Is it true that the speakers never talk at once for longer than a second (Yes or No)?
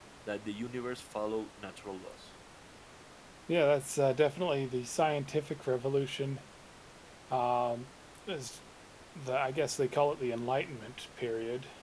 Yes